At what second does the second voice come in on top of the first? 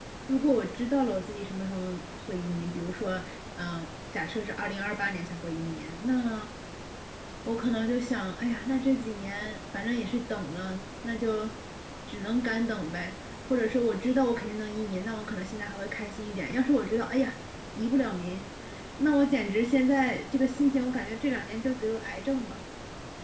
none

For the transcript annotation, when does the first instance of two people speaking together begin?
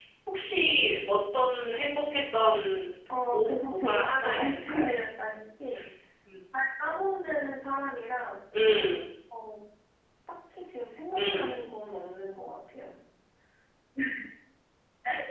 3 s

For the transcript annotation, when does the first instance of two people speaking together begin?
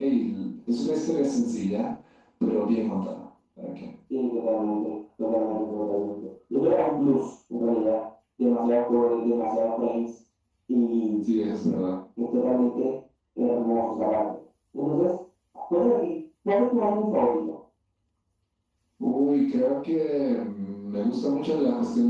none

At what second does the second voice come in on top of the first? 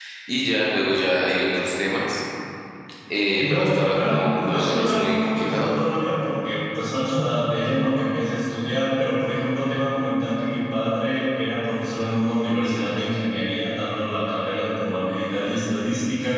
3 s

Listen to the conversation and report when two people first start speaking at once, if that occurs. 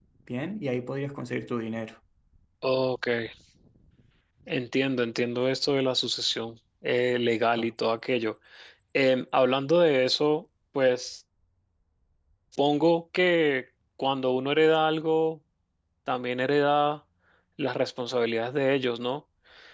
none

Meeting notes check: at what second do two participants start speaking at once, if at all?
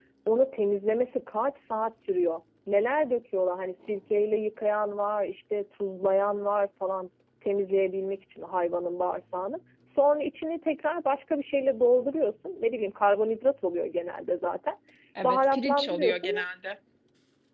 15 s

